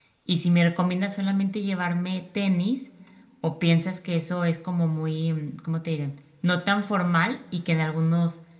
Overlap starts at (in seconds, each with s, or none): none